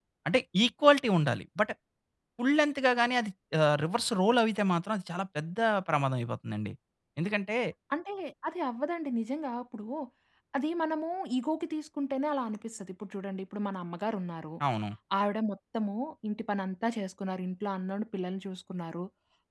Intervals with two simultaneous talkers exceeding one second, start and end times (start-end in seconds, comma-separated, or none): none